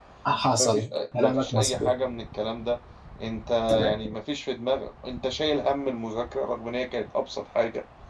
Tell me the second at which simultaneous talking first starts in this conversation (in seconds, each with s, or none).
0.6 s